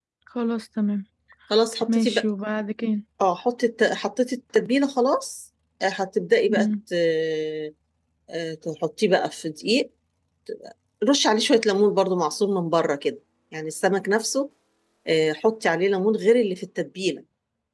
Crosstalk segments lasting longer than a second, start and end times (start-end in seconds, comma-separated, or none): none